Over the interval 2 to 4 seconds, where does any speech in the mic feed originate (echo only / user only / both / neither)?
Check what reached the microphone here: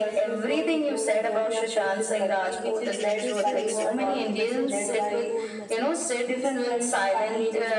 both